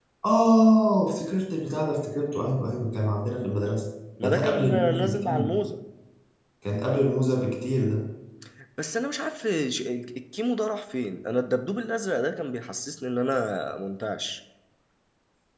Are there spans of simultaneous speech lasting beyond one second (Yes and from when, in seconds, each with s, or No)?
Yes, from 4.2 s